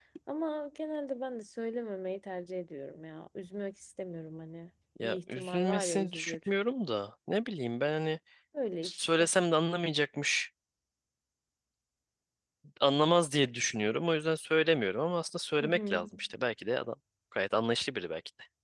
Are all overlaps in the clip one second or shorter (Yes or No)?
No